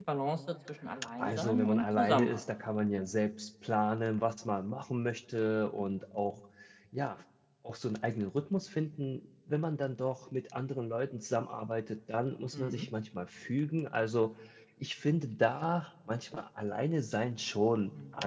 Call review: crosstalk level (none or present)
present